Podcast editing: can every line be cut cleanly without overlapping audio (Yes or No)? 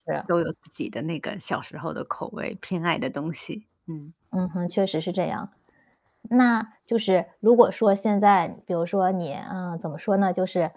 Yes